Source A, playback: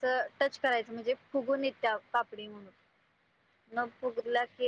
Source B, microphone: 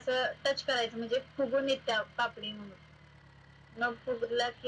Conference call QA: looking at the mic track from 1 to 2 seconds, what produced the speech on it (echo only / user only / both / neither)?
echo only